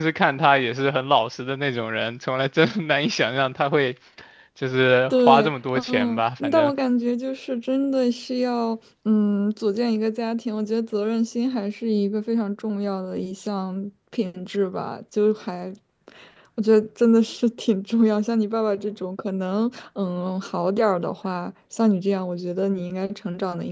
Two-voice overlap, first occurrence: 5.1 s

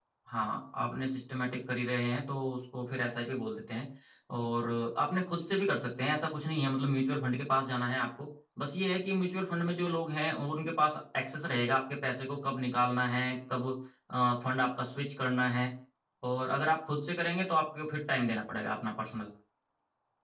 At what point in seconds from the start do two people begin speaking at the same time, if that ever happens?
none

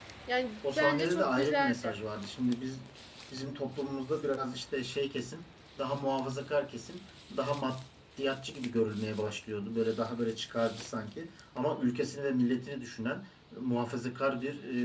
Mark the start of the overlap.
0.8 s

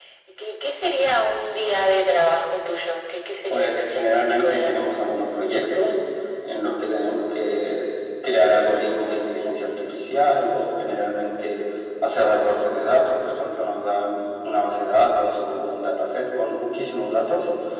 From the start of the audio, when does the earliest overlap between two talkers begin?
3.5 s

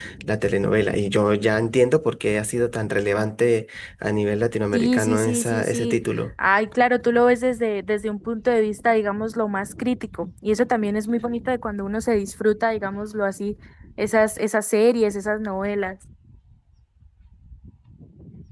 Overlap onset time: 4.7 s

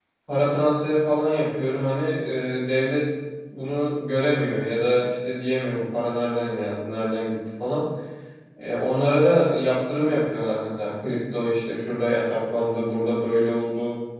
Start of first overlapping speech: none

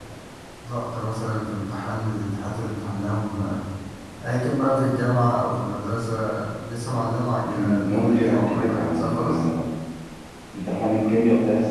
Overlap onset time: 7.4 s

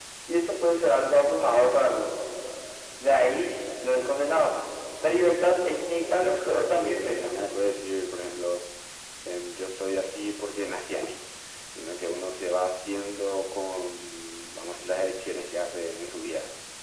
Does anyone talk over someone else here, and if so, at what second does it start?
5.4 s

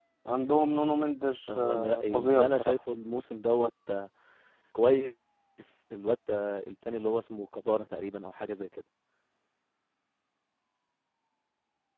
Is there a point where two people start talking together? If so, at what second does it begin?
1.5 s

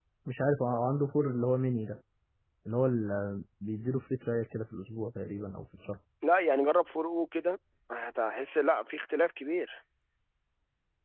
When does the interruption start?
none

